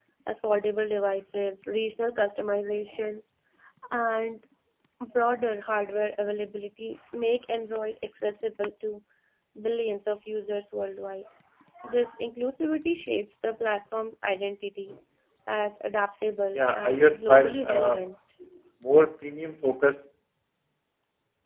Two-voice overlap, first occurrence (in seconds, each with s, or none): 16.5 s